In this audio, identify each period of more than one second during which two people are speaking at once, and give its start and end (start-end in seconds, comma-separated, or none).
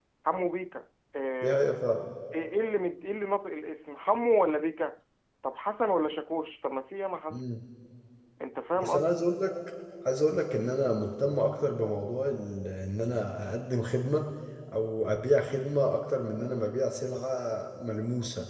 none